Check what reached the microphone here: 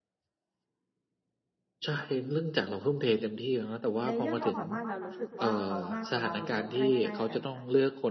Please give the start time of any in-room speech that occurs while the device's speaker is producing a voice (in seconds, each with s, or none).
4.0 s